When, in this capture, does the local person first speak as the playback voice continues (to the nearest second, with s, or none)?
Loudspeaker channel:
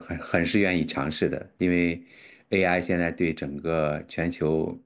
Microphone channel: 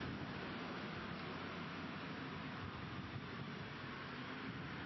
none